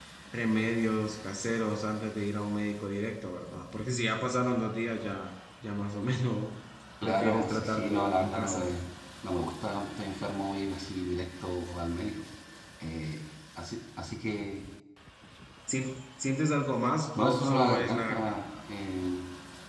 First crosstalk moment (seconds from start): 7.0 s

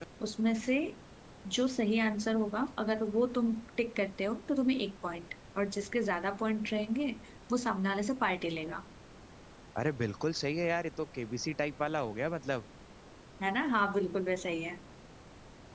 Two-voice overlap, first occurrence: none

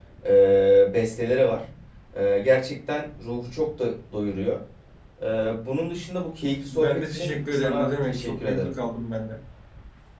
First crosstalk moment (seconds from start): 6.7 s

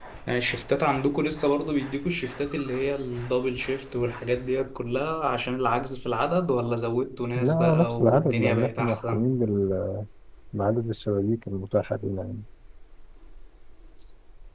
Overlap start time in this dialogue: 7.3 s

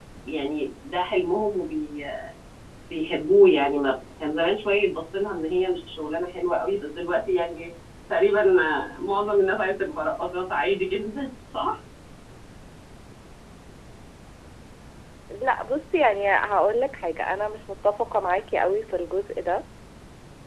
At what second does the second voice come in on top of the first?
none

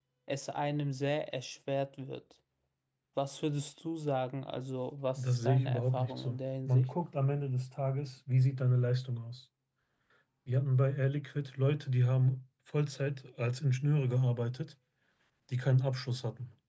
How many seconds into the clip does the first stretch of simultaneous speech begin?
5.2 s

